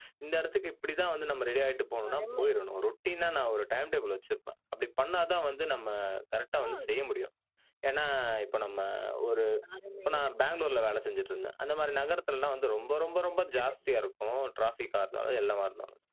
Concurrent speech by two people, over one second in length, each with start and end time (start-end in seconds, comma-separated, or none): none